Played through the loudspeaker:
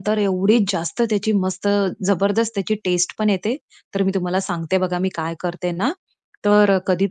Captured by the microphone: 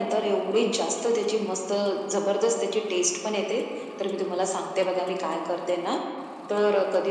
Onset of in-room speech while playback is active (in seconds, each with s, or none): none